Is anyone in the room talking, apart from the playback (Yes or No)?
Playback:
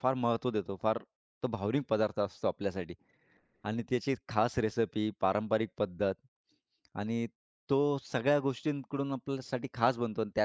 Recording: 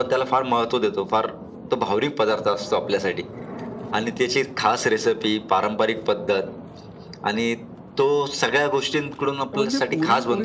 Yes